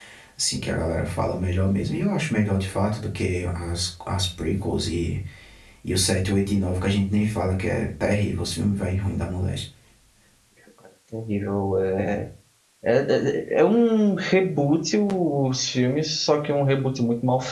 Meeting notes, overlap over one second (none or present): none